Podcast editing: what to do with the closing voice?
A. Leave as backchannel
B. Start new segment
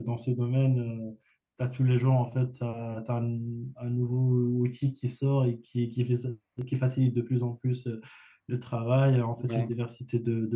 A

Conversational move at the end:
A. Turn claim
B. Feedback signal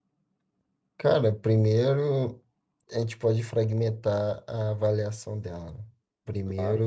B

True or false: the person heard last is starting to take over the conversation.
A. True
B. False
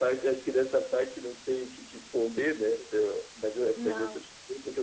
B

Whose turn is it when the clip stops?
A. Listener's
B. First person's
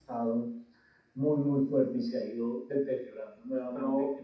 A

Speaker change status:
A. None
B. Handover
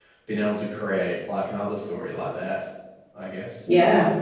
B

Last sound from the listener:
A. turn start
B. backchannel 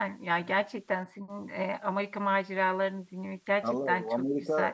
A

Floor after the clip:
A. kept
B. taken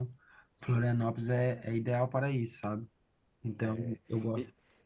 B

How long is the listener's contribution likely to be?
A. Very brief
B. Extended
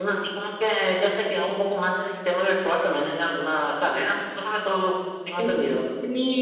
B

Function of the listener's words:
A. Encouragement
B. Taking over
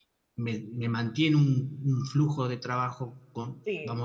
B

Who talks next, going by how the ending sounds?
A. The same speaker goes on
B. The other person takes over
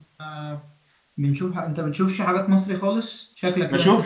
B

